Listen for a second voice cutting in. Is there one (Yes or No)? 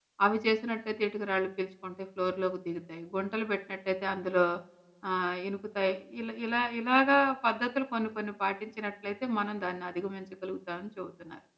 No